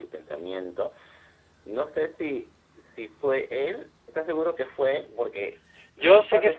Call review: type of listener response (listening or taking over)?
taking over